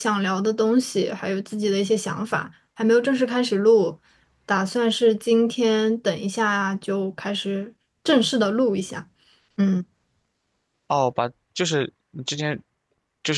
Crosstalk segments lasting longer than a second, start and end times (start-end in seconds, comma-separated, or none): none